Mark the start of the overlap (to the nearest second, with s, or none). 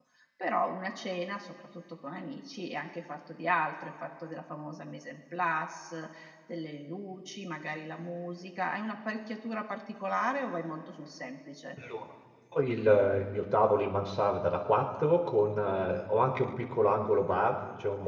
none